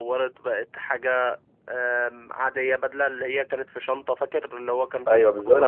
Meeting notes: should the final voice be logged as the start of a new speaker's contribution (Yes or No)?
Yes